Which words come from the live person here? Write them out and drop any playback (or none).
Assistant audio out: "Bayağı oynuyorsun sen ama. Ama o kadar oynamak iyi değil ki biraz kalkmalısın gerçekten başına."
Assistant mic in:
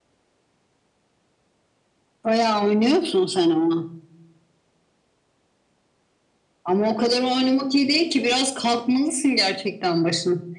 none